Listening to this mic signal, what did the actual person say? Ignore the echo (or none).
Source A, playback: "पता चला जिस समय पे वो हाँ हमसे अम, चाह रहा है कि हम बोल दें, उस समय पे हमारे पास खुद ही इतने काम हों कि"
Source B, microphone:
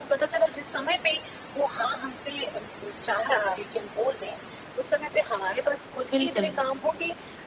बिल्कुल।